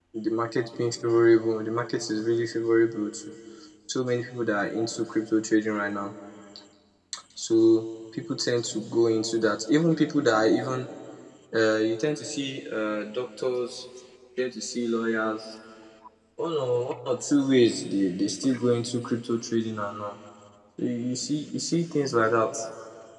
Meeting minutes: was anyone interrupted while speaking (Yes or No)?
No